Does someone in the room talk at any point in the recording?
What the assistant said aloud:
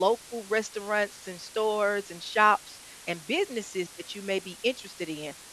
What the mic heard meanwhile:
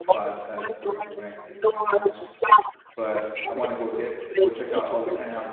Yes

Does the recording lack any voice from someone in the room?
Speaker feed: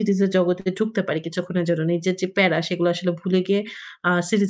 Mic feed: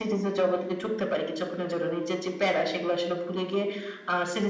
Yes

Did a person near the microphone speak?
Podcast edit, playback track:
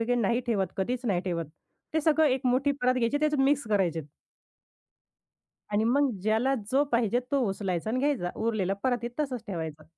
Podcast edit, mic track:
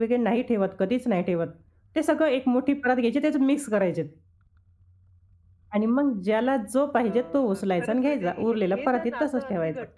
Yes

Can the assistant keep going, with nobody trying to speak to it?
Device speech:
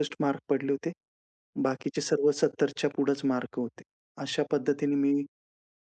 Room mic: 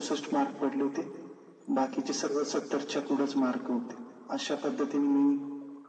Yes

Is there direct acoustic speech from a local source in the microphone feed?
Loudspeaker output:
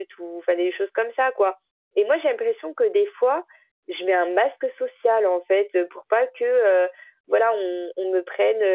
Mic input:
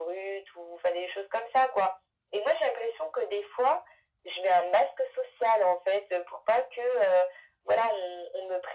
No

